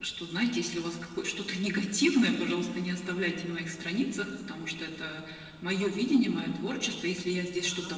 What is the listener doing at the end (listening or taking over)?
listening